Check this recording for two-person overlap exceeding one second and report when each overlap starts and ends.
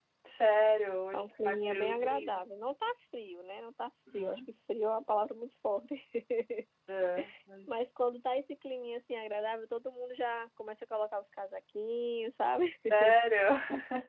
1.1-2.4

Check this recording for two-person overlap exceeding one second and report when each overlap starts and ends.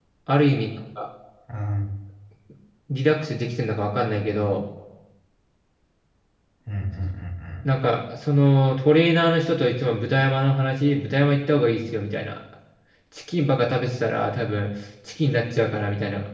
none

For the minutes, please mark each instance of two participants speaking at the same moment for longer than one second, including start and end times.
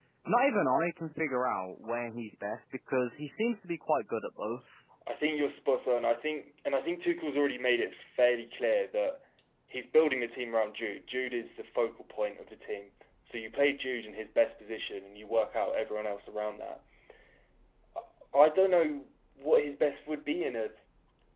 none

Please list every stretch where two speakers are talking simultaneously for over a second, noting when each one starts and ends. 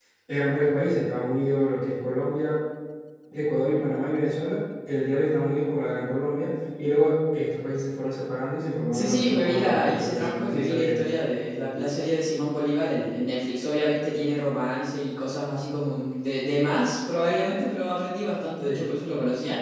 8.9-11.2

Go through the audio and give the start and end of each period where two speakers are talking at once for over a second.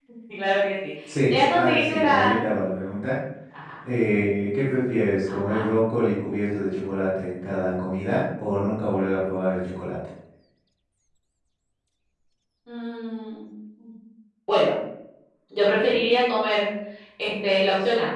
1.1-2.5

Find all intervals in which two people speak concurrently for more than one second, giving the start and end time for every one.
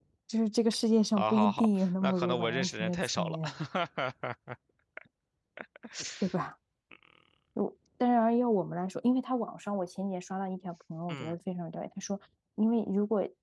1.2-3.4

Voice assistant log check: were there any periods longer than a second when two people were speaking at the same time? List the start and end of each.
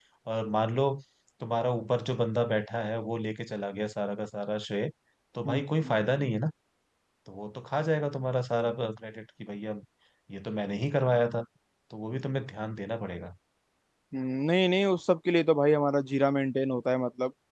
none

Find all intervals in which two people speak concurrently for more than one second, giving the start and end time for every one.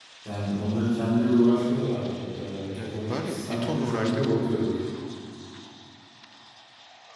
2.8-4.2

